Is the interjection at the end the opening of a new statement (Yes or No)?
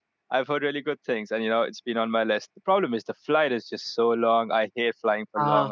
No